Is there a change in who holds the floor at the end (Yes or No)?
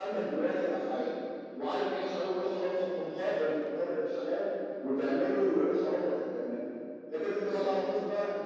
No